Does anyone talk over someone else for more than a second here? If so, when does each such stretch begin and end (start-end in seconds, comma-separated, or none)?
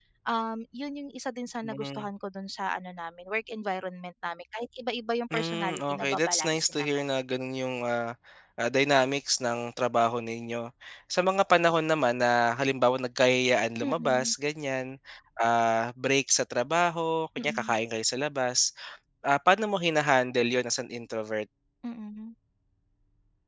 5.3-7.0